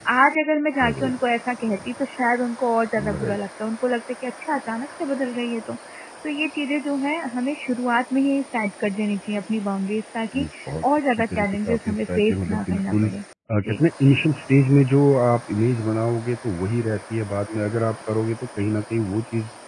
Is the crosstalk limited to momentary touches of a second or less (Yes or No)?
No